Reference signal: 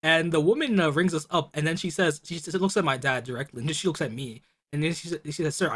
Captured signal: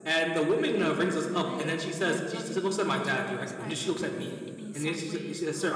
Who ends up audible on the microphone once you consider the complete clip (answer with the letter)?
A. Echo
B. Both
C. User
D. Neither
B